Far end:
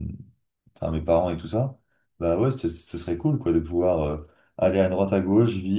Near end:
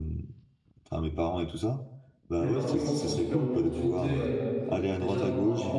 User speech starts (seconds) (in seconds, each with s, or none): 2.4 s